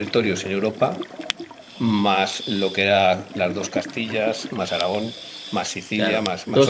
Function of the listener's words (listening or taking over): taking over